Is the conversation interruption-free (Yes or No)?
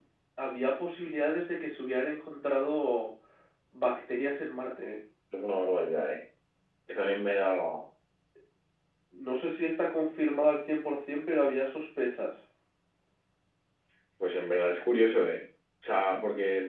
Yes